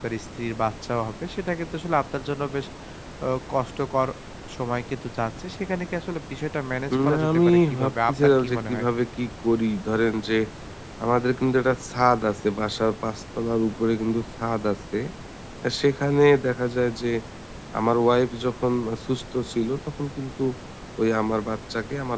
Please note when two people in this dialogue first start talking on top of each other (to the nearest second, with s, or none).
7 s